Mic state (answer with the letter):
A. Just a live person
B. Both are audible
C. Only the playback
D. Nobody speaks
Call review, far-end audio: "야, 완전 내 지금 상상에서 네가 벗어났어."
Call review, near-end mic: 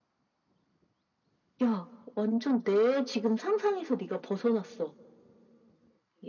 C